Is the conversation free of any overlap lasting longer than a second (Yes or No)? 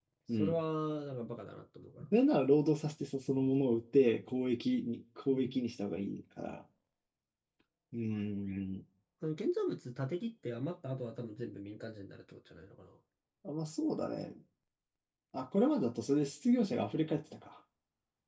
Yes